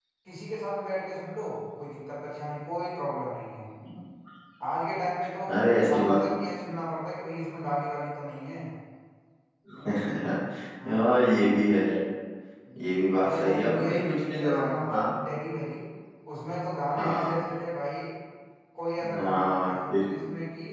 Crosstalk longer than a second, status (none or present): present